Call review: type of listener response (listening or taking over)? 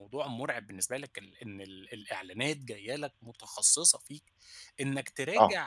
listening